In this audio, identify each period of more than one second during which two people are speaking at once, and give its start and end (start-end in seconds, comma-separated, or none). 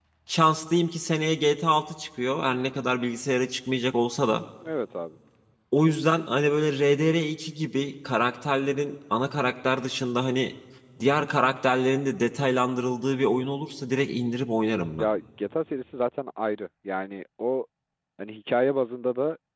none